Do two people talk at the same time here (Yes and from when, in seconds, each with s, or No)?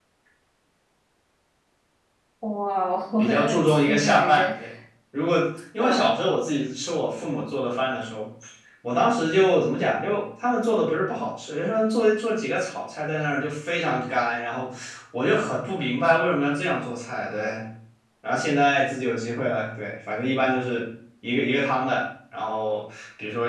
Yes, from 3.2 s